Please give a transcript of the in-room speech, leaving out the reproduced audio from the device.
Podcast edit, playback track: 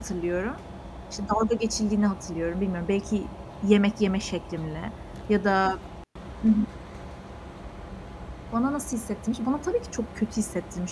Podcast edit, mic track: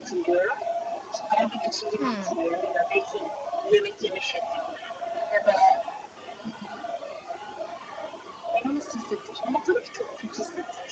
Hıı.

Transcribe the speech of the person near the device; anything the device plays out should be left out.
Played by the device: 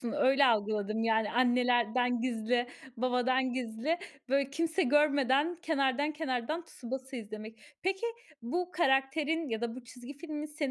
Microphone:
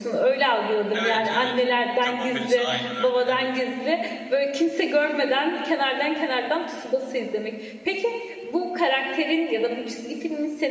Evet, evet. Japon birisi aynen öyle, evet.

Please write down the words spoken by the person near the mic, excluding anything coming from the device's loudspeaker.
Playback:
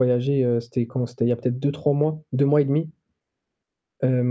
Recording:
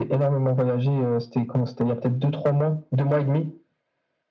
none

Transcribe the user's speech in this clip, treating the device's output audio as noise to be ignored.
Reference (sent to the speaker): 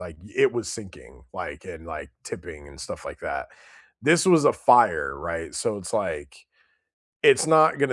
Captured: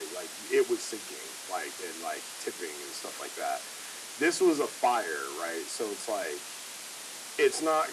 none

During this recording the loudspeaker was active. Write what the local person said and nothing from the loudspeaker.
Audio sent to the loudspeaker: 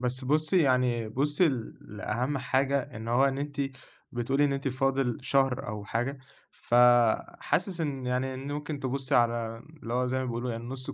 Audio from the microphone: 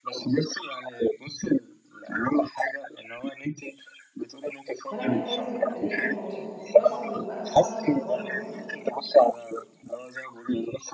فأنا باحاول ألاقي حل وسط، plus إنه بقى صحابي اللي برا المنحة

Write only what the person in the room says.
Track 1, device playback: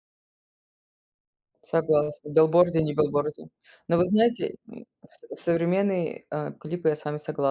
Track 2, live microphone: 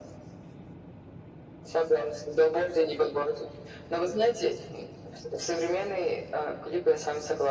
none

